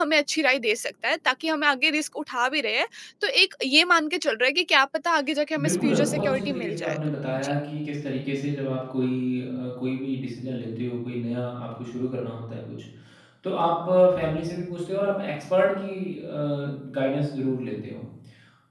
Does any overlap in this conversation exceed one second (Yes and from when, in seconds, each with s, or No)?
Yes, from 5.5 s